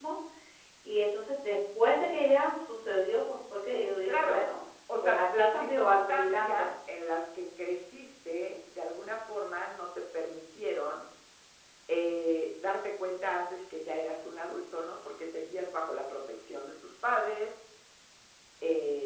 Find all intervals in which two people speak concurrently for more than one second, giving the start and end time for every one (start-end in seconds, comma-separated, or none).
5.0-6.7